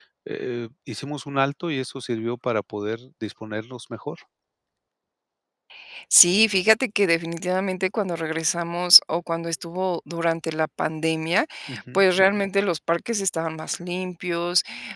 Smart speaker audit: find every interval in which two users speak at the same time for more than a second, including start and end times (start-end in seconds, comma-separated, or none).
none